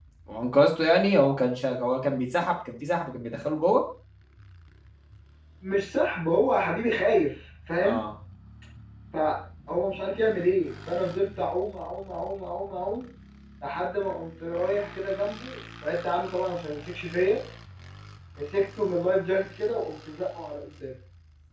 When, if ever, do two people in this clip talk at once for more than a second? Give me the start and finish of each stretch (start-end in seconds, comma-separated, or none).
none